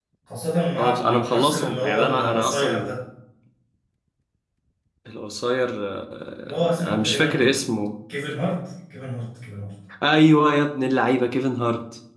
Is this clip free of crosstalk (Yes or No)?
No